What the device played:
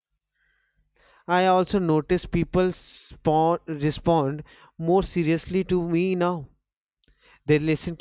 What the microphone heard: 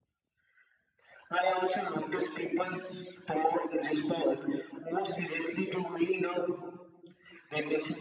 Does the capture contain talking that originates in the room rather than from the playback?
No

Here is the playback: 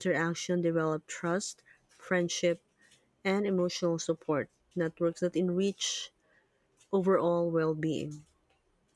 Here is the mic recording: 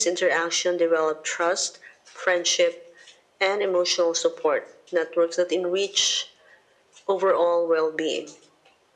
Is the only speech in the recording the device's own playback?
Yes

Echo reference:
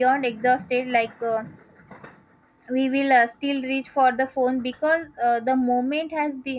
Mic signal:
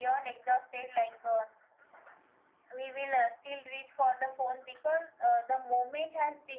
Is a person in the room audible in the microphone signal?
No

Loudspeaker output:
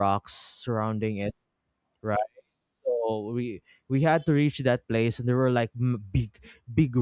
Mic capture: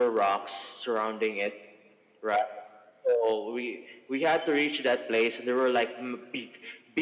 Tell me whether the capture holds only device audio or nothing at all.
Yes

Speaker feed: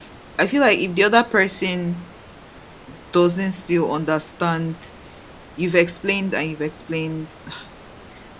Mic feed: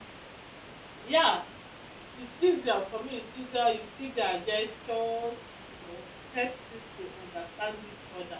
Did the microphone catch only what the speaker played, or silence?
No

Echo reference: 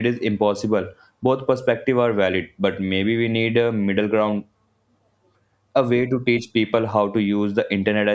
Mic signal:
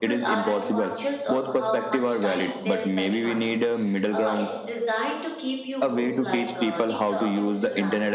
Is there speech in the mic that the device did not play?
Yes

